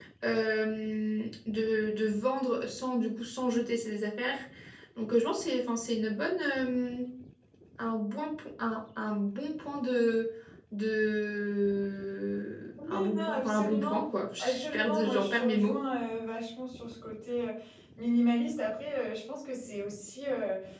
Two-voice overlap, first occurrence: 12.8 s

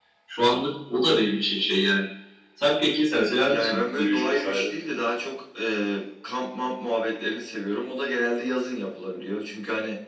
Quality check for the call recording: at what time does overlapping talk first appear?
3.4 s

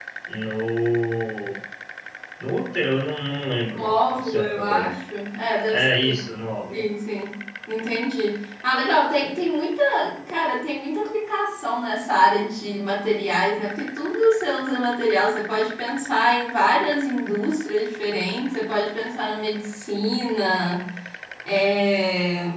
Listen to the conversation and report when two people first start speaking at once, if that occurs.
3.7 s

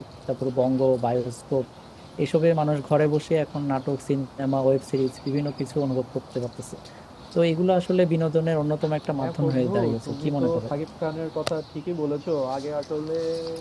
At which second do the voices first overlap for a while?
9.1 s

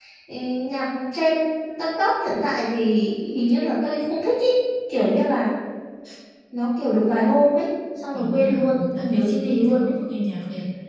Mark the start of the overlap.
8.1 s

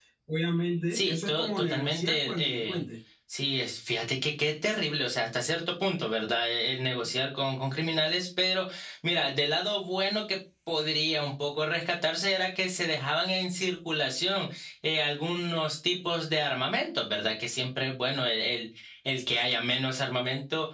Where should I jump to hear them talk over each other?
0.9 s

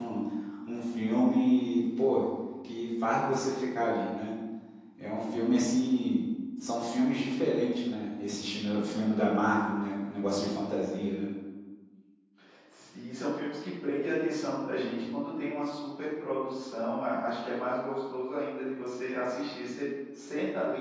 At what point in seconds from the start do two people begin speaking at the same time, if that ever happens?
none

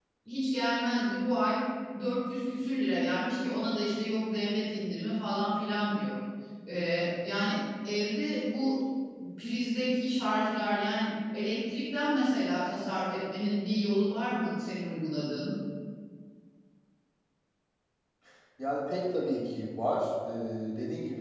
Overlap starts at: none

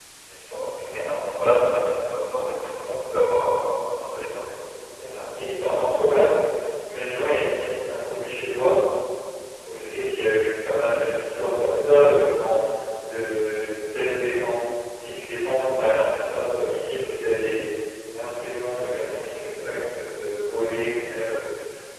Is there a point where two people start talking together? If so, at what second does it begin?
none

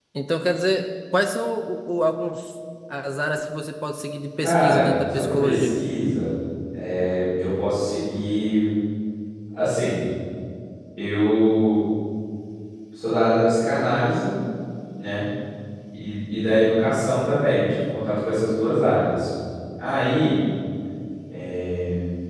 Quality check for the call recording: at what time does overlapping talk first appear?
4.4 s

